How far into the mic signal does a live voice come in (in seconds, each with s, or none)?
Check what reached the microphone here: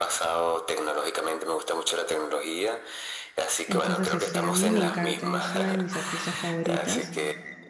3.7 s